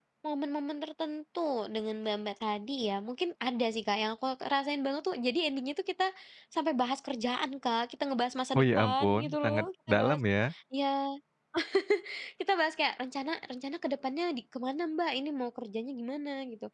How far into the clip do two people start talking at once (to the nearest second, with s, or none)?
9 s